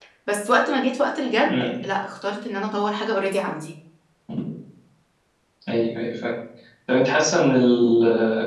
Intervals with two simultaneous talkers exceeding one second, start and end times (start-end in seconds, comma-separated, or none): none